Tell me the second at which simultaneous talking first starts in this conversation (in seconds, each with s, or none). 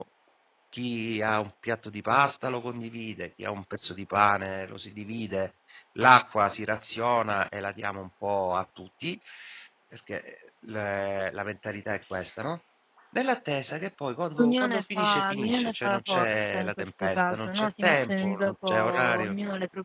14.3 s